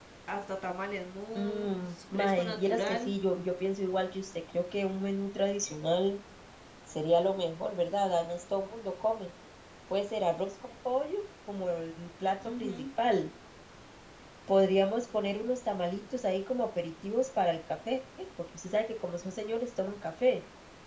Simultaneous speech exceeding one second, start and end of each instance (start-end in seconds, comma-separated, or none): 1.4-3.1